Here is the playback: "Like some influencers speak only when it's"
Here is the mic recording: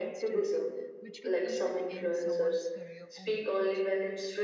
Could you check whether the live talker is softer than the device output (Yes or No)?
Yes